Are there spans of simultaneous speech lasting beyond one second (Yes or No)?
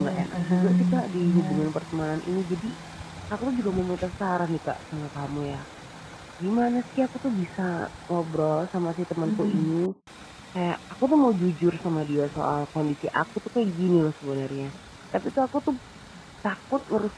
Yes